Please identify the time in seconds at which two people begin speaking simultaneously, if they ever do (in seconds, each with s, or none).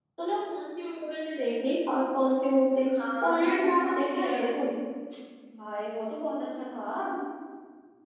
3.2 s